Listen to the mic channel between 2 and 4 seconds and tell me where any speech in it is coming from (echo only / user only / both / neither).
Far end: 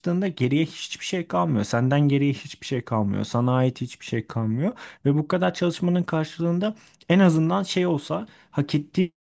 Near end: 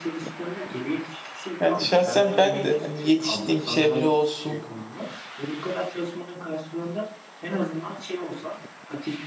both